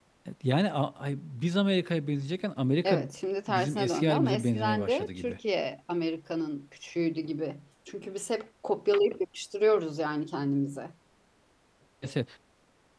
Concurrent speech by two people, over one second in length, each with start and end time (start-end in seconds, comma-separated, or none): 3.5-5.4